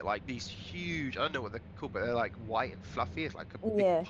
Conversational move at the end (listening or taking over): listening